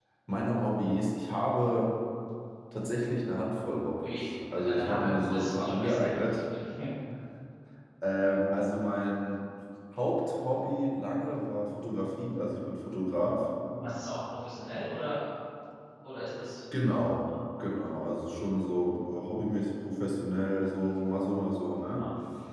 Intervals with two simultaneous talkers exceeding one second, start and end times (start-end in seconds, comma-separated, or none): 4.0-6.2